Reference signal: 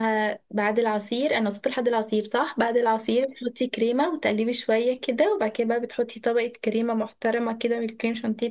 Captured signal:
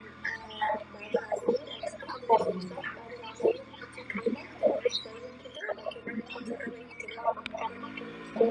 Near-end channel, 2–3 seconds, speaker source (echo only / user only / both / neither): both